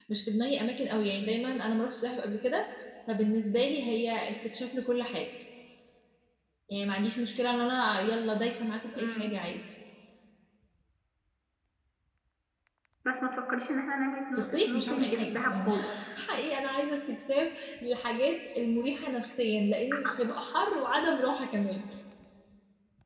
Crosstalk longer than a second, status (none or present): present